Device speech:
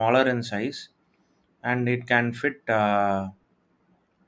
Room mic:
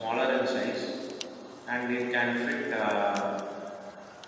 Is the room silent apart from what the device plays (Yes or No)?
Yes